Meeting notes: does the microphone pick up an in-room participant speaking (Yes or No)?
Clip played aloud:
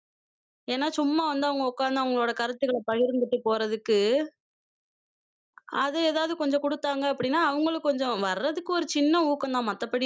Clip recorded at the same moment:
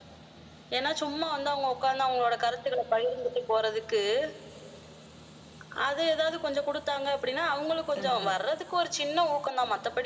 Yes